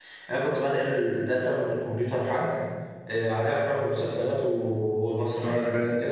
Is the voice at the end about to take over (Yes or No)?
No